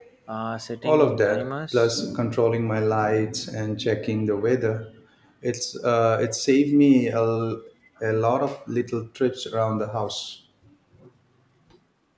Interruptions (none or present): present